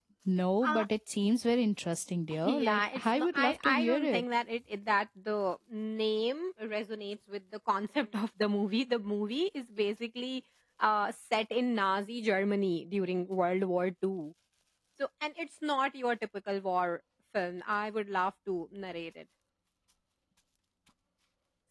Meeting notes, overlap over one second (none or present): present